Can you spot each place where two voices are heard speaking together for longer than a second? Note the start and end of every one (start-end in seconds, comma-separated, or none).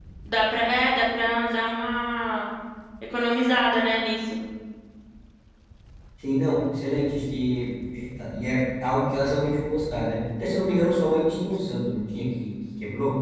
none